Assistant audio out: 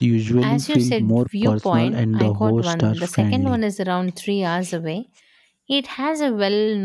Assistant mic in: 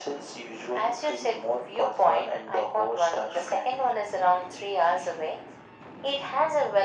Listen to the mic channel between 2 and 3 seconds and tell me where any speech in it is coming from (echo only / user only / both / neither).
echo only